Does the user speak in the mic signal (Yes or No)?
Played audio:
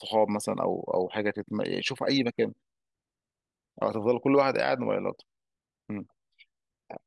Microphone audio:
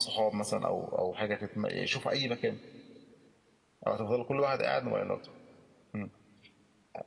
No